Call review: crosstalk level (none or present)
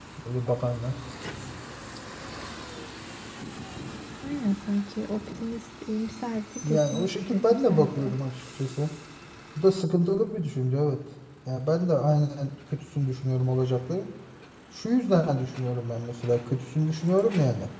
present